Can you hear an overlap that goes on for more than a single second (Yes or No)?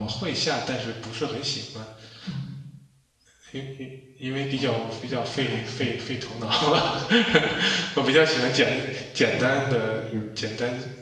Yes